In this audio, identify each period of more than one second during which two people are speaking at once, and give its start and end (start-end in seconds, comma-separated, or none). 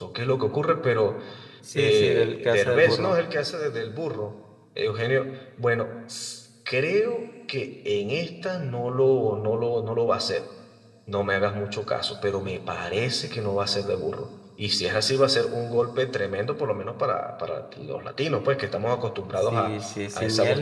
1.7-3.2